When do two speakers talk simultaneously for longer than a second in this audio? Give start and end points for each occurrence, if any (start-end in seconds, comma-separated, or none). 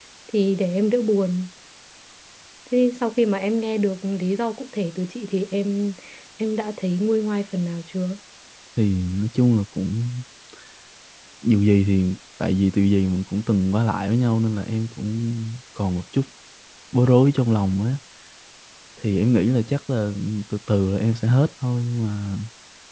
none